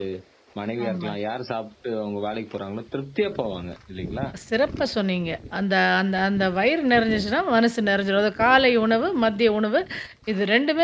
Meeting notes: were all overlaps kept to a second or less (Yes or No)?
Yes